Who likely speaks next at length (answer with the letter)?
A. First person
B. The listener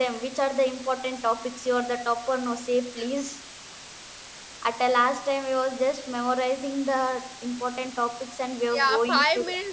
B